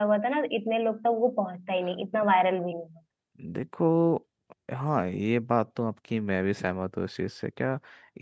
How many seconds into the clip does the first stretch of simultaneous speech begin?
none

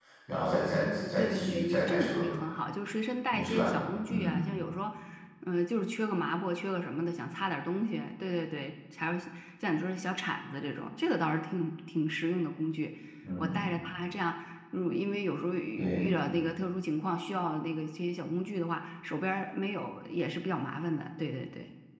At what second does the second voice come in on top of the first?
1 s

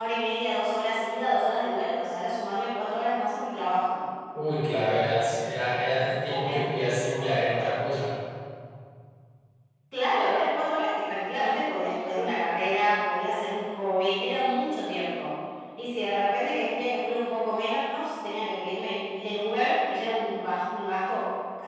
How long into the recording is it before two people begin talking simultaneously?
6 s

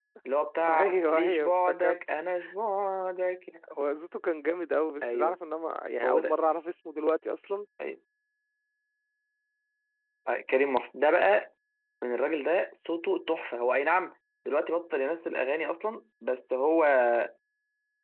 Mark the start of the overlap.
1 s

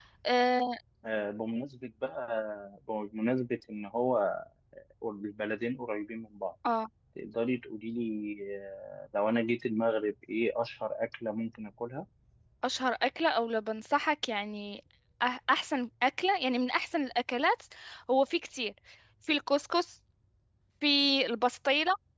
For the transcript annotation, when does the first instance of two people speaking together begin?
none

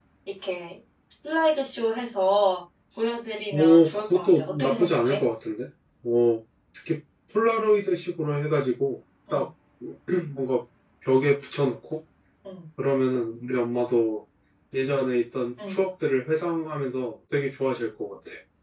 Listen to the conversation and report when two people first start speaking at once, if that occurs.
4 s

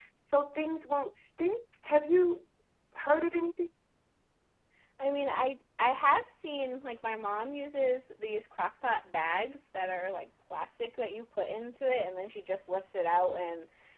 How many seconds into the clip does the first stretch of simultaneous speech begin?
none

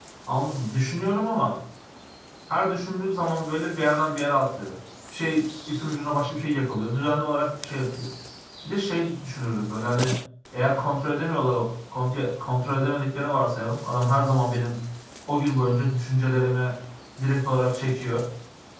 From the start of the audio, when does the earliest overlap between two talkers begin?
none

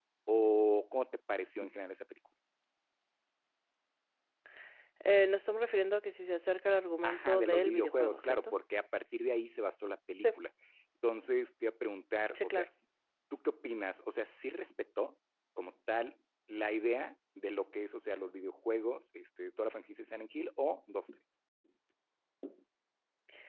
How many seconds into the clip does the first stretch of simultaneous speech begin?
7 s

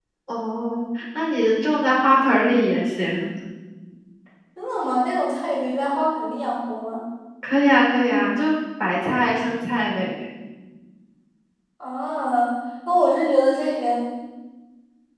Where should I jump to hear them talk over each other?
none

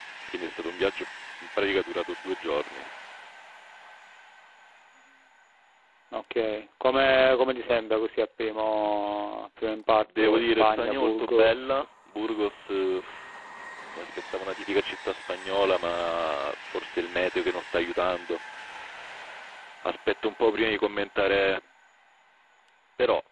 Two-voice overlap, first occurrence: 10 s

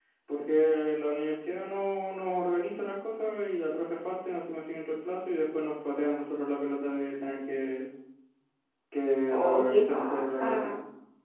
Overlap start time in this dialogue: 9 s

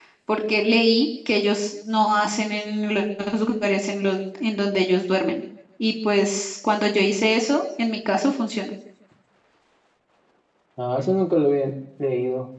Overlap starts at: none

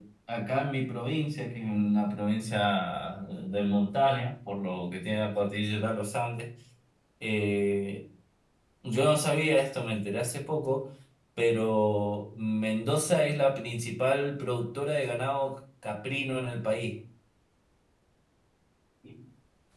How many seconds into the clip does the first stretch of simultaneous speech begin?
none

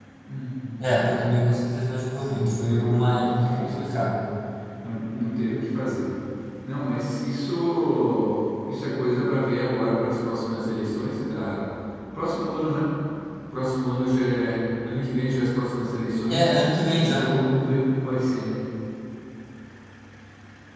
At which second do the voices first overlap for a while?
2 s

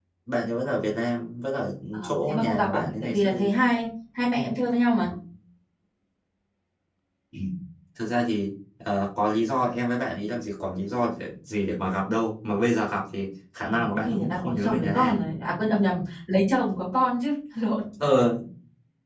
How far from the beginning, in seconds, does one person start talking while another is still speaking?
2 s

